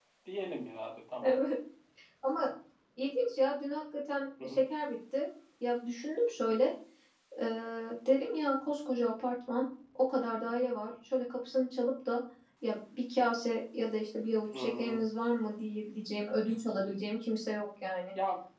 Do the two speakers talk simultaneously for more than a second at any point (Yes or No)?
No